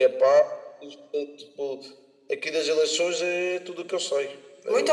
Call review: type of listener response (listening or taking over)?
taking over